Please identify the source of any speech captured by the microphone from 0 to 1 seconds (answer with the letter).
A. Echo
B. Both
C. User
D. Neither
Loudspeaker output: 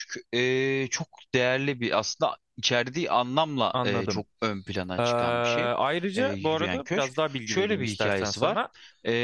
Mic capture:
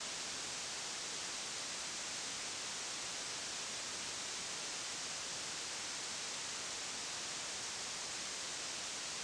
D